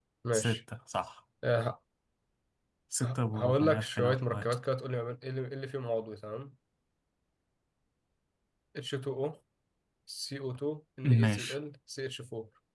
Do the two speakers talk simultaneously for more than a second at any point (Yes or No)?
Yes